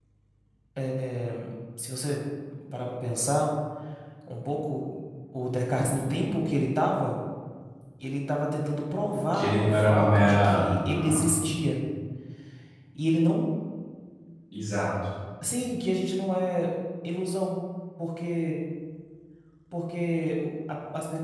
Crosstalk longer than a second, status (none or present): present